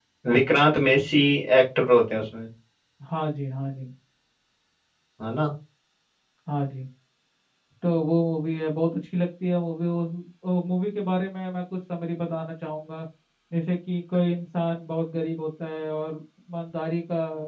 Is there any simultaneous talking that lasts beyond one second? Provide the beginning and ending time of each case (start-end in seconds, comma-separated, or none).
none